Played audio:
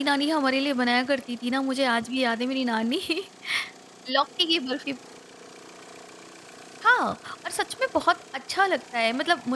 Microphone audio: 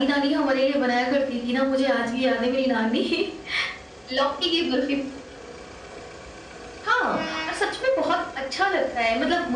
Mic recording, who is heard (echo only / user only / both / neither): echo only